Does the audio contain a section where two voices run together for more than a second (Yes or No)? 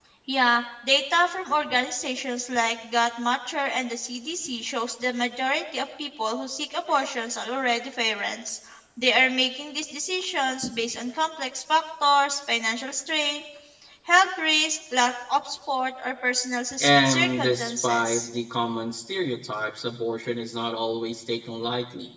Yes